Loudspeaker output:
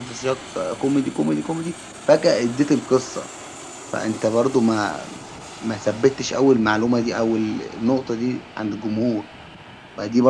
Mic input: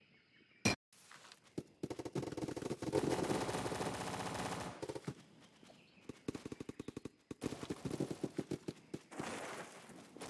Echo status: none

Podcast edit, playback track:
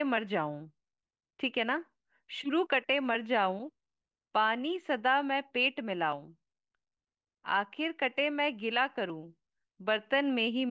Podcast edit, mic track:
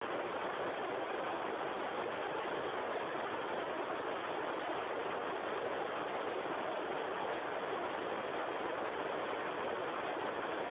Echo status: none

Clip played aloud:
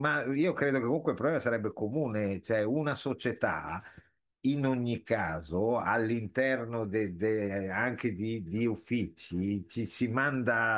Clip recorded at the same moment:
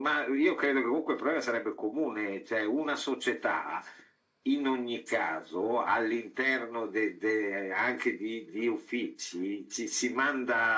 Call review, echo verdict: present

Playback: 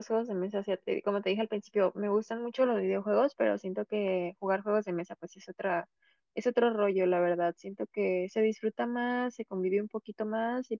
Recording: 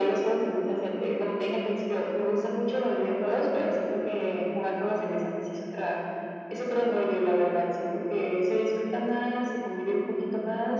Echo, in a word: present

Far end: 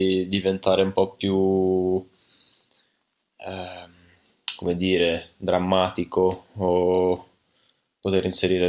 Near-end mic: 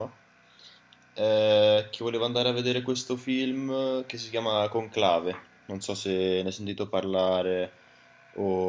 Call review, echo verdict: none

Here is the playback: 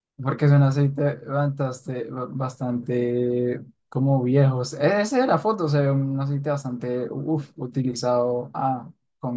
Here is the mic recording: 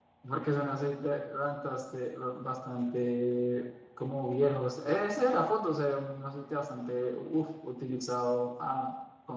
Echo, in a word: present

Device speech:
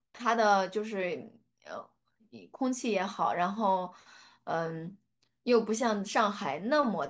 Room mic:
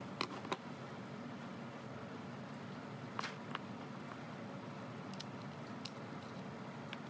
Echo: none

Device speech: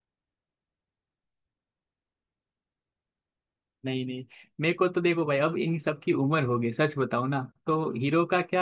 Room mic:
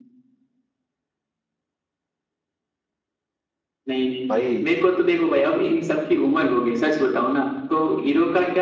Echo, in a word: present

